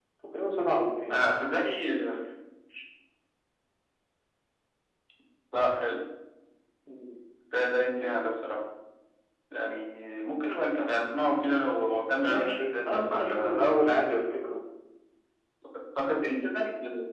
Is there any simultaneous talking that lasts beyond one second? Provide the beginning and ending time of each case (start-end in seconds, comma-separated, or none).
12.2-13.7